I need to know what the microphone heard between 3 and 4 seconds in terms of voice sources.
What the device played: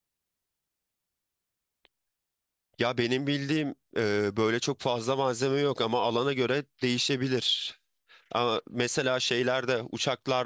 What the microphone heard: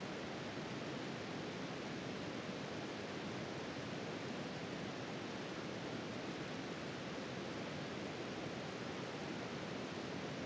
neither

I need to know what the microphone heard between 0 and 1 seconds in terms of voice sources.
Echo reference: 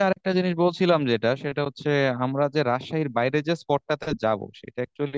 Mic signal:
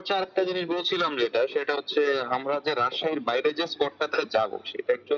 echo only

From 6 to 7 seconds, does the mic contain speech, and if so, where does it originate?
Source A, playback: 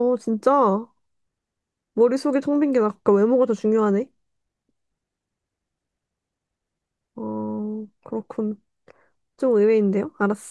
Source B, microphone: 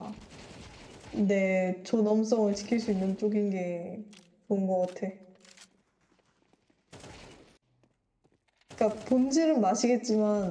neither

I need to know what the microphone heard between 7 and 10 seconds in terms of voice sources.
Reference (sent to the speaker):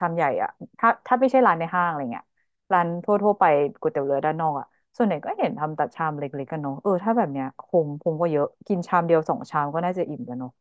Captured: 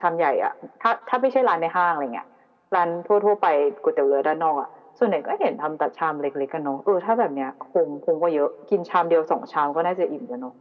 echo only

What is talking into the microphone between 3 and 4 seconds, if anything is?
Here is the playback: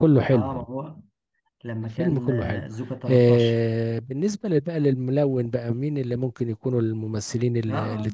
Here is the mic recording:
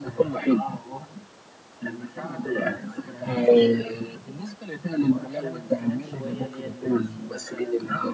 both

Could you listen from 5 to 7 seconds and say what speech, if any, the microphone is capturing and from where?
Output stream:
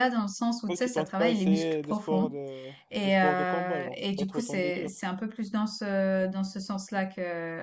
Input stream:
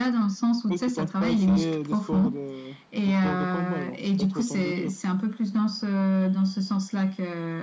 echo only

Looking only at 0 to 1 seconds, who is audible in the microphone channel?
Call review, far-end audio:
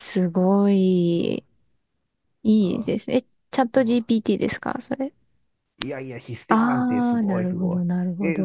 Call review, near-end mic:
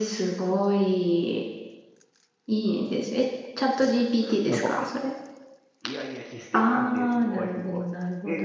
echo only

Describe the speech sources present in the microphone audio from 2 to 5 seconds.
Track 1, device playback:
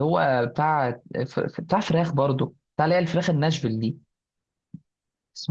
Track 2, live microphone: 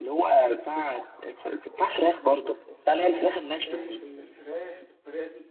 both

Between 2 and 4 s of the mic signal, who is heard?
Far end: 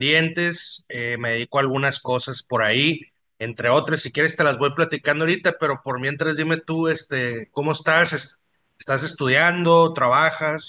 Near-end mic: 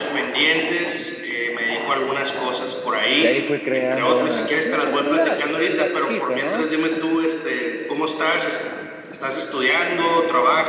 both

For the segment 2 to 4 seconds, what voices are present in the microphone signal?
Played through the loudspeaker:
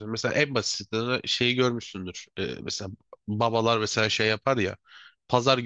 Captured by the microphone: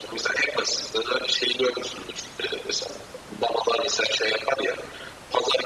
echo only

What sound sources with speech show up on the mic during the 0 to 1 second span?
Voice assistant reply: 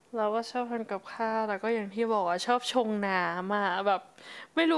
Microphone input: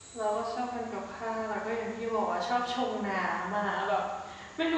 echo only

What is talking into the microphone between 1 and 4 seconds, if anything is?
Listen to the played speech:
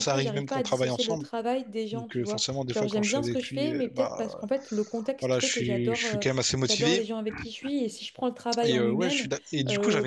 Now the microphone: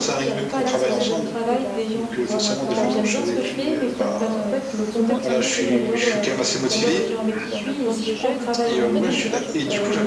both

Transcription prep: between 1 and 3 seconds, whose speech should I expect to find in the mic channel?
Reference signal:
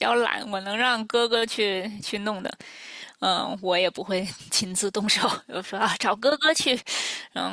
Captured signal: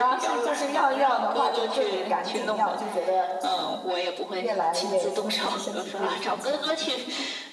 both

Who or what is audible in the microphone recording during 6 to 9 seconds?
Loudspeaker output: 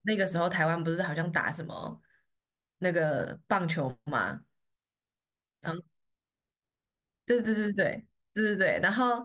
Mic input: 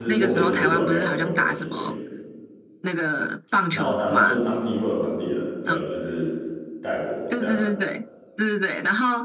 both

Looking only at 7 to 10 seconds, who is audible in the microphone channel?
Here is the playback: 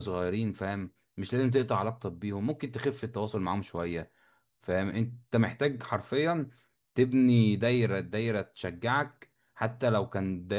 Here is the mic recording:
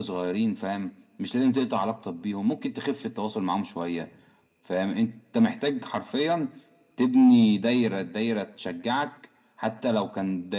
echo only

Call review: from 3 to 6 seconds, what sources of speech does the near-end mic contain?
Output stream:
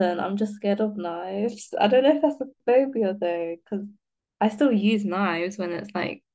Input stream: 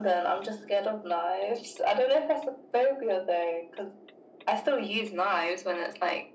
echo only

